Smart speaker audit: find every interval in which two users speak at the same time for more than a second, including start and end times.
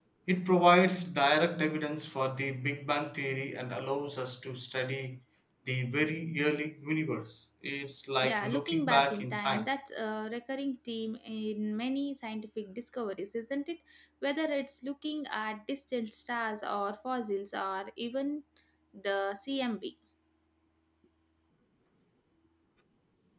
8.2-9.7

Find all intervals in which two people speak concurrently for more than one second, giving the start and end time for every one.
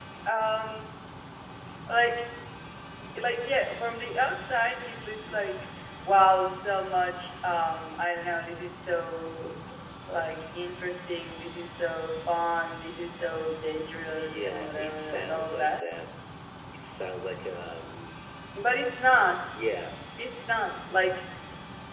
14.0-15.9

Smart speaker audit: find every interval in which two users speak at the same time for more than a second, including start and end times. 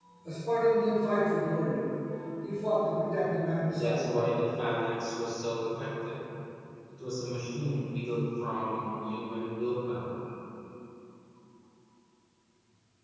none

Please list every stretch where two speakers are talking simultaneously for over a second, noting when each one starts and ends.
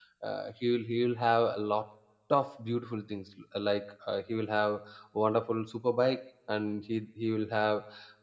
none

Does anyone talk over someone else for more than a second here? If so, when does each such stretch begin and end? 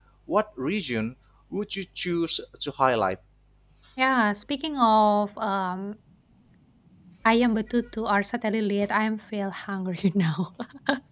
none

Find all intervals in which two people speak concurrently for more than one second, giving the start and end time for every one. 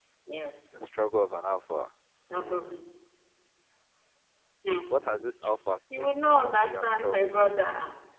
6.0-7.5

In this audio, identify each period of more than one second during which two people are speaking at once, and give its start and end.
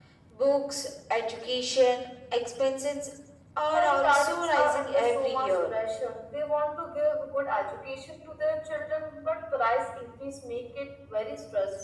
3.7-5.7

